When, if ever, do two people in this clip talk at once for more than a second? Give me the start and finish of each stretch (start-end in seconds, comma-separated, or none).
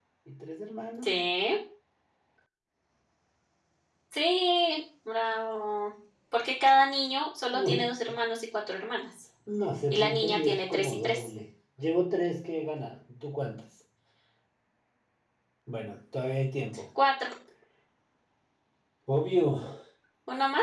9.9-11.3